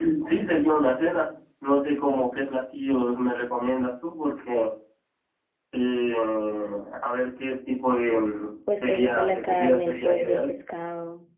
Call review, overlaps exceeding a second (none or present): present